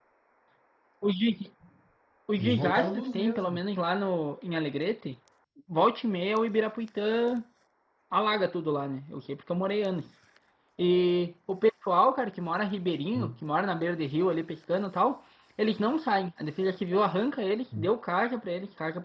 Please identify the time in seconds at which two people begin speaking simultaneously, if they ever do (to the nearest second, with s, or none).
2 s